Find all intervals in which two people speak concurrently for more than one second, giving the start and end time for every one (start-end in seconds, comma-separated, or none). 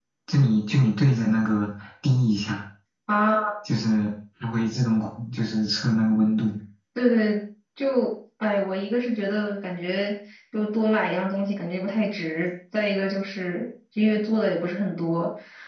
none